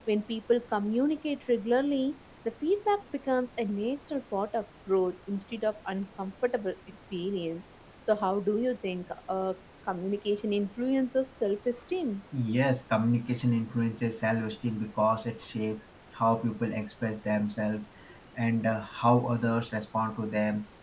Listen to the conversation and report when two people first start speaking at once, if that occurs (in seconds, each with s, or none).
none